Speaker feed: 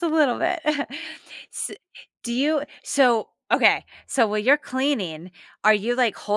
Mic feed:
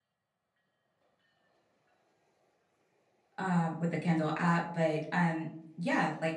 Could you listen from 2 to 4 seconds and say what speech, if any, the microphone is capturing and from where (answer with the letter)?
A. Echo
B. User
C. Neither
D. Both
B